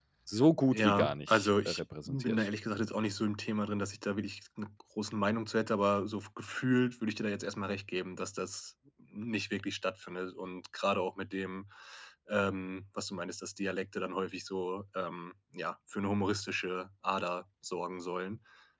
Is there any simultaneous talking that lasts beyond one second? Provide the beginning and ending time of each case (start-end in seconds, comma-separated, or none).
0.7-2.5